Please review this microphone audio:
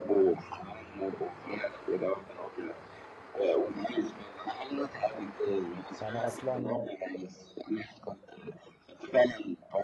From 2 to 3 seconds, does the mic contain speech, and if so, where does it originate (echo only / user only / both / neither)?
echo only